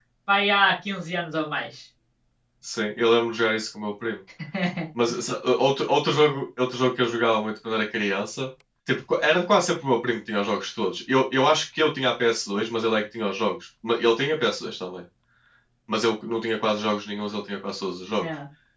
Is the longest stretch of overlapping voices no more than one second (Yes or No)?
Yes